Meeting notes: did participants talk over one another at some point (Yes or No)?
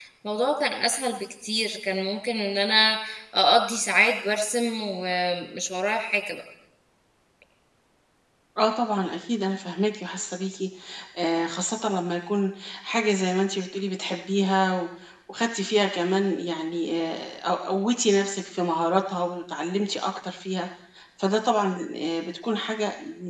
No